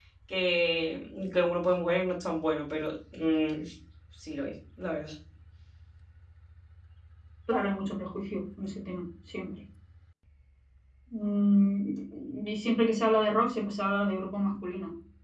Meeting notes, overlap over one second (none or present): none